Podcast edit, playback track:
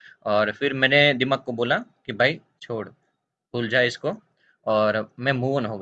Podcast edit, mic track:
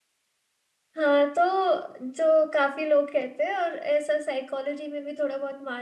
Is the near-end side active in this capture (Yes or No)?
Yes